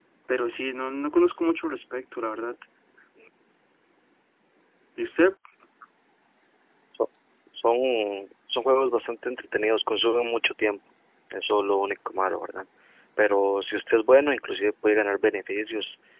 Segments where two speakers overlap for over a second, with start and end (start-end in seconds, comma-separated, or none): none